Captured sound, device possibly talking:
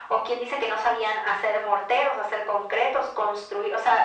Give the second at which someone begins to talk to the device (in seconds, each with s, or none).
none